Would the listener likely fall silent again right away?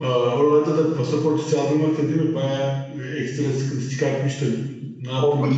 No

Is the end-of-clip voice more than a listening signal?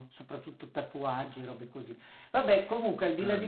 No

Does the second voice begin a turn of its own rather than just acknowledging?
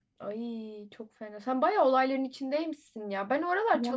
No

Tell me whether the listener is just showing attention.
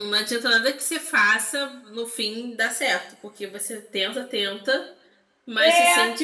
Yes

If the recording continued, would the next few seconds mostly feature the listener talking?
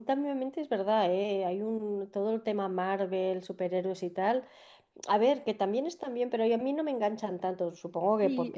Yes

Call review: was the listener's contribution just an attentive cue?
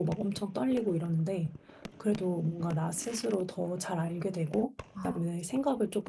Yes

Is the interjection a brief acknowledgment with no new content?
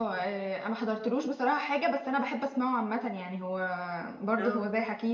Yes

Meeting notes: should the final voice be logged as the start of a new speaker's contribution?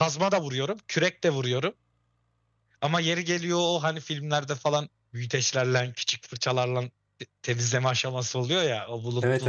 No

